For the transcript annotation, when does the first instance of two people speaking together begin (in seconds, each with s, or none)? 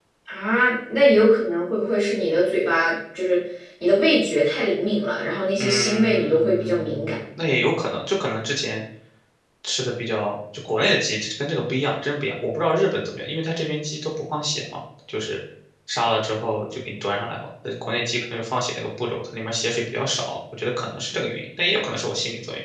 5.6 s